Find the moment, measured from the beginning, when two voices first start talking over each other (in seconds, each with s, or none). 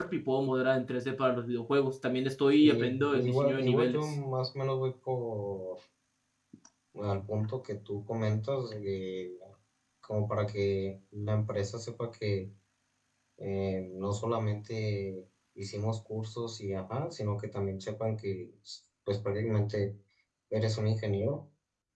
2.6 s